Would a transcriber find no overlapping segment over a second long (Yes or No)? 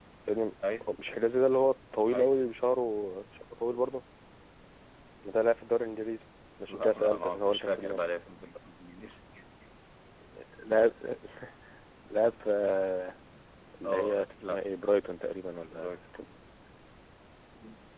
No